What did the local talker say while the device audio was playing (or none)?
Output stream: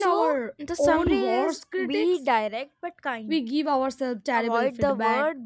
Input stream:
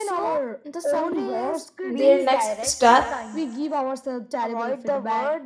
their next step.